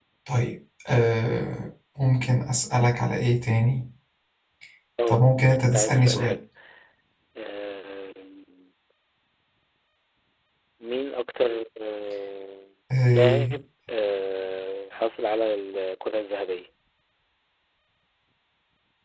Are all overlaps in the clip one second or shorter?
No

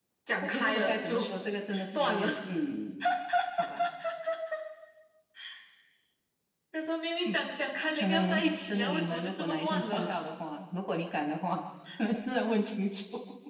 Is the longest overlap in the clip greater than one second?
Yes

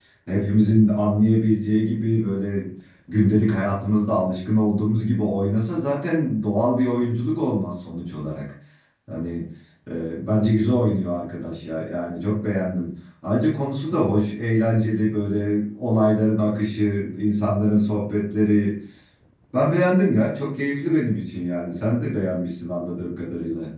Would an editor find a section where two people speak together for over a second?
No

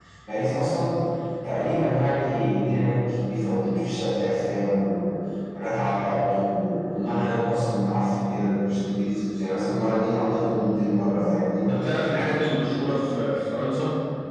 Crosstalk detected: No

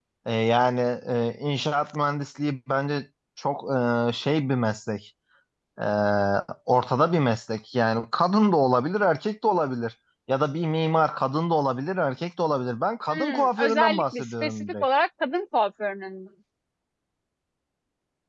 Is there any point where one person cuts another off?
Yes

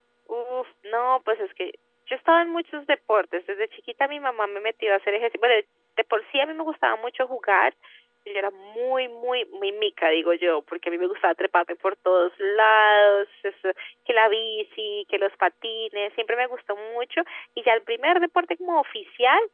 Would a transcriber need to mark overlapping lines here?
No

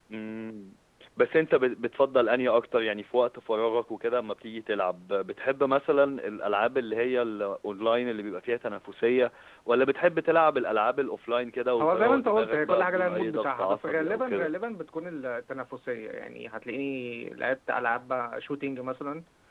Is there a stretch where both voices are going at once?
Yes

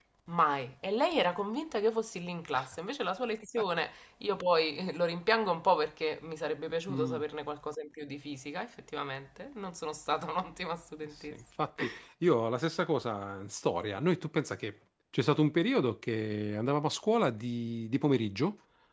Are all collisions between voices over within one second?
Yes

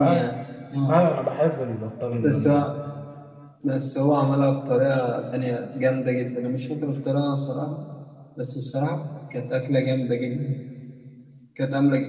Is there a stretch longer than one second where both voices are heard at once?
No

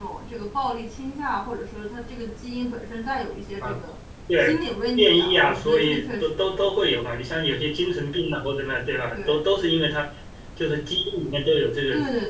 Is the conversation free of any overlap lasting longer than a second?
No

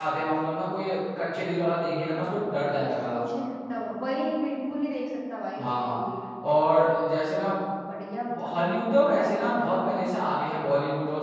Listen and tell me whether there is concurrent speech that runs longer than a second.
No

